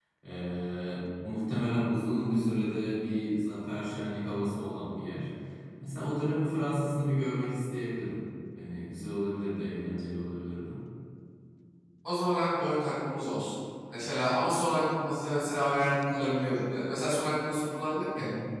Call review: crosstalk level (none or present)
none